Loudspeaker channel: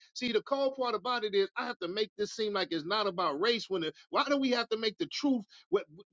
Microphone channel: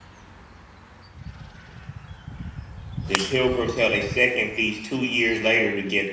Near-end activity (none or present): present